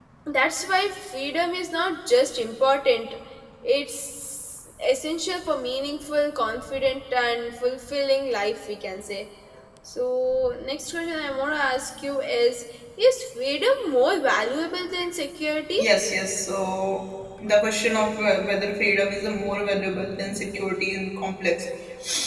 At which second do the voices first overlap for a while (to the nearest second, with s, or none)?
none